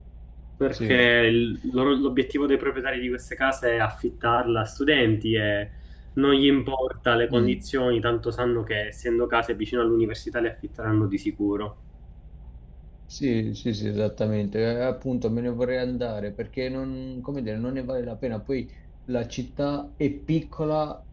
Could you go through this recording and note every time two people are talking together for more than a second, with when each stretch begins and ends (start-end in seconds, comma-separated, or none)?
none